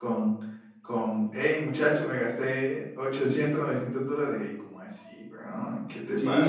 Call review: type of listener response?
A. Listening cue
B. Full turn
B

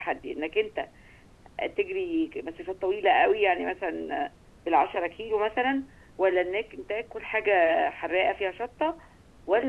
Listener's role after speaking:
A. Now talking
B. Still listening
B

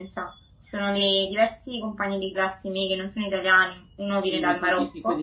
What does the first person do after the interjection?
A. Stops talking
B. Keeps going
A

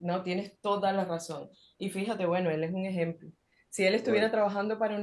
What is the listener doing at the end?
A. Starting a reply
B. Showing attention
B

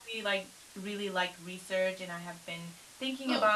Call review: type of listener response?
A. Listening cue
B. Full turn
A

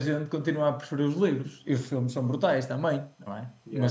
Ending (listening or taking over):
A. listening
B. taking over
A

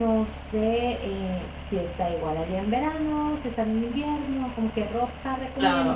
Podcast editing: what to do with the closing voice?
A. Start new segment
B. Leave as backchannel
A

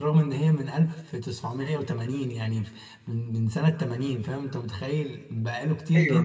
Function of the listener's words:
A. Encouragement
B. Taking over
A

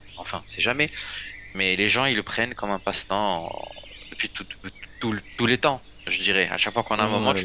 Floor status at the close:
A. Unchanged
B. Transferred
B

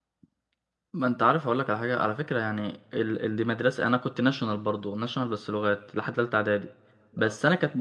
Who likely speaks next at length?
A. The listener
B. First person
B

